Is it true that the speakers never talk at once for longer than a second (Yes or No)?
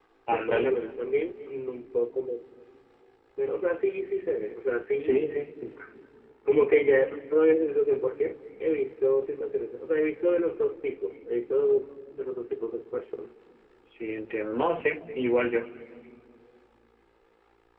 Yes